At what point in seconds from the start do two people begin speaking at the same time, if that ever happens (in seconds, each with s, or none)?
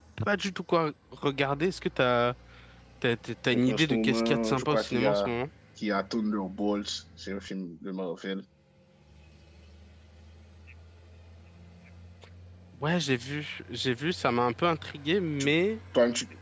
3.7 s